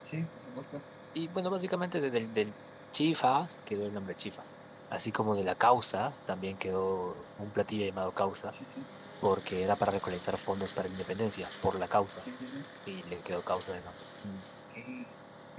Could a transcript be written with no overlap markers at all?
Yes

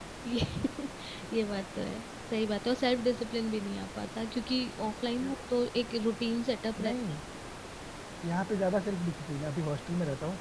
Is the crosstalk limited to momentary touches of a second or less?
Yes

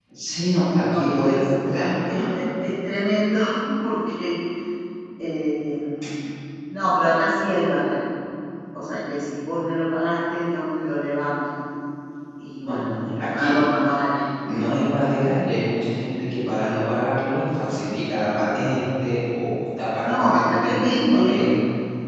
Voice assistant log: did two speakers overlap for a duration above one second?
Yes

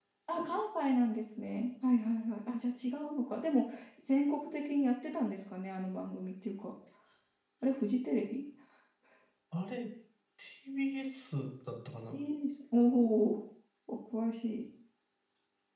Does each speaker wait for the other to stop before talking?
Yes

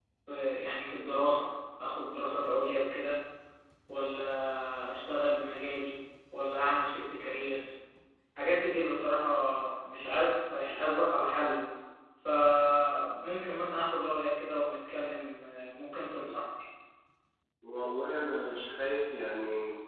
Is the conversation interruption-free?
Yes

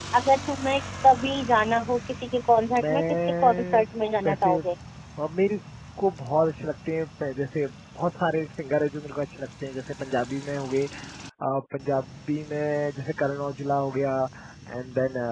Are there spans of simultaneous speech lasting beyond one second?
Yes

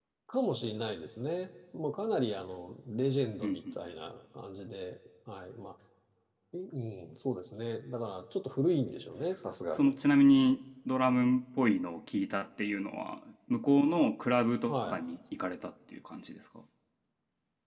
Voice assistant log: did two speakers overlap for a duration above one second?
No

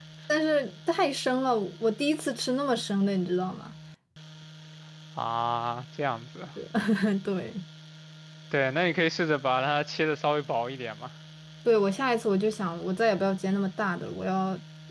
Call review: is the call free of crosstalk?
Yes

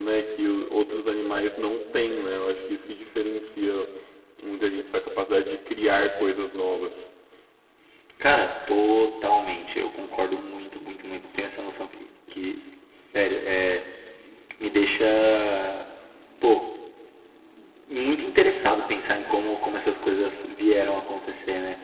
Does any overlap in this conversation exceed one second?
No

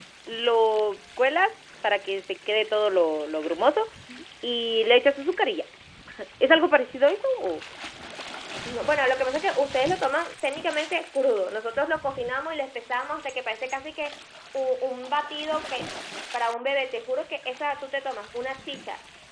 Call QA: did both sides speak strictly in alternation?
Yes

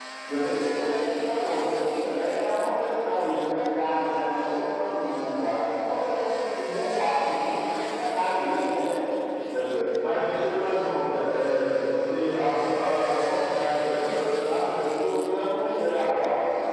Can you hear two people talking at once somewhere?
No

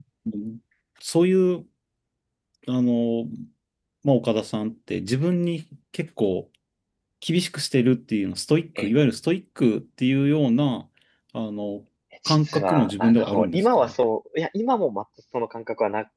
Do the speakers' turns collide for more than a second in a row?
Yes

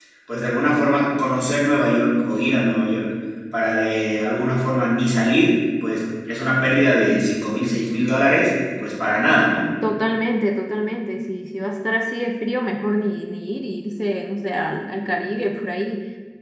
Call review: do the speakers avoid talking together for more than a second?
Yes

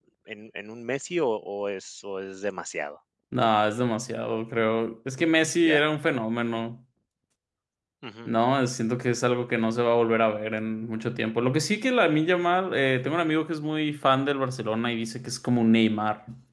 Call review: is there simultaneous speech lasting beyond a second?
No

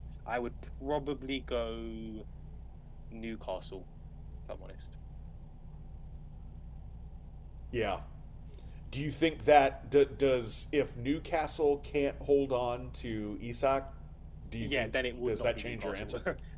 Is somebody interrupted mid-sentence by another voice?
Yes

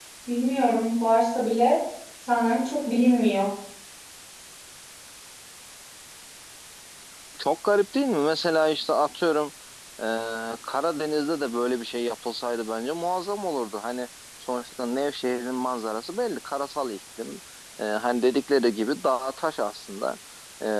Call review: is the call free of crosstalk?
Yes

